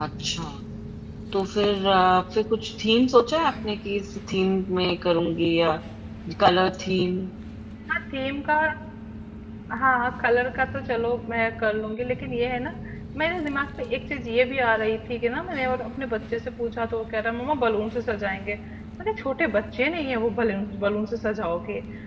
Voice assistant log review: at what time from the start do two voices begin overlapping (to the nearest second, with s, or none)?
none